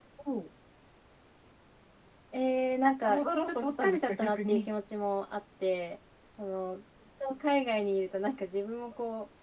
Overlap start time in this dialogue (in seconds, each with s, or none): 3.1 s